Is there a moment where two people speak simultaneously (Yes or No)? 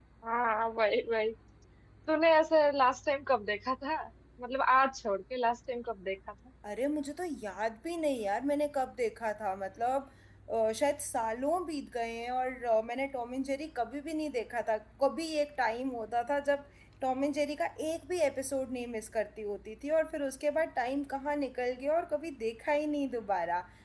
No